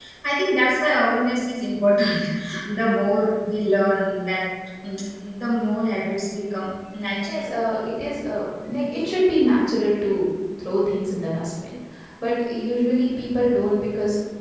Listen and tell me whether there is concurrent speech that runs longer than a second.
No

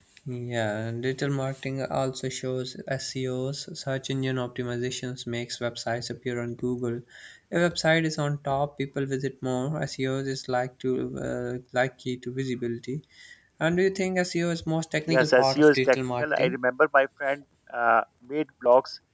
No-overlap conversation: No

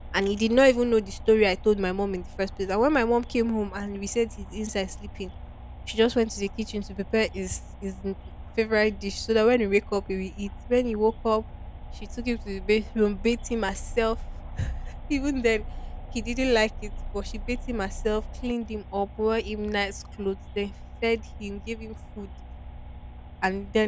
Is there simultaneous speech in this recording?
No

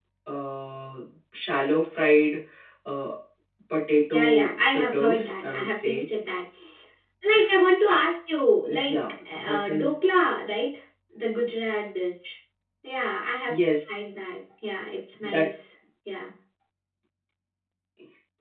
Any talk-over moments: Yes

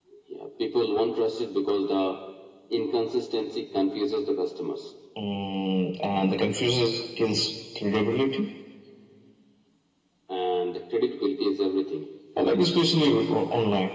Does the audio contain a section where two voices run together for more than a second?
No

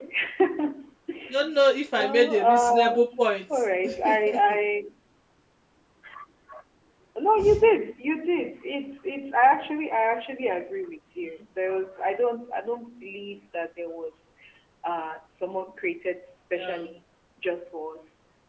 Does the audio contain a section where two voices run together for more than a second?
Yes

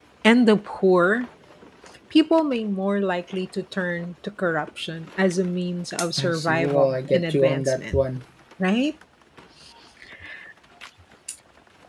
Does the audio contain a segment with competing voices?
Yes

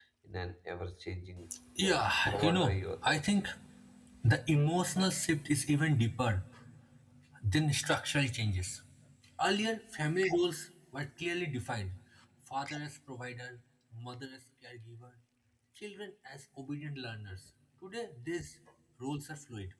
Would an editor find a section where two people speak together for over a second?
Yes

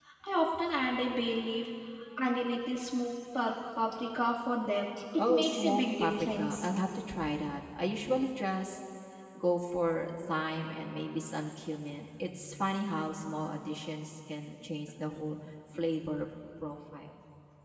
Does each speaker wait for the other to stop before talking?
No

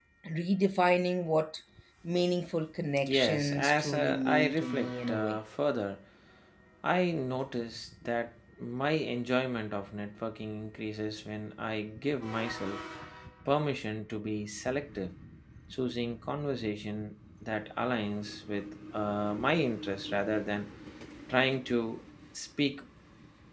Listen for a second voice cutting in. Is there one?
Yes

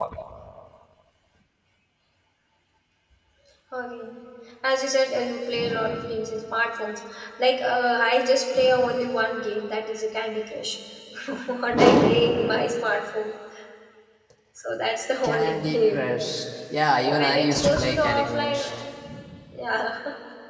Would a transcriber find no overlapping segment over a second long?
No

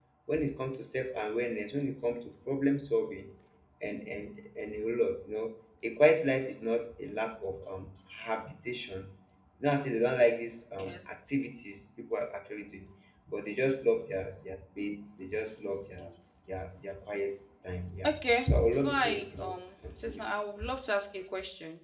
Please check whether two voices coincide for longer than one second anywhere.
Yes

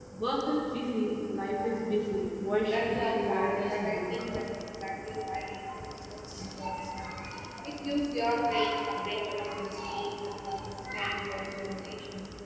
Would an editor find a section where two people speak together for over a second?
Yes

